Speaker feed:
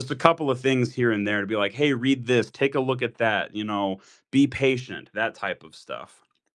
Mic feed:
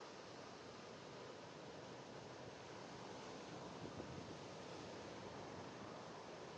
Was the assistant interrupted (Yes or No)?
No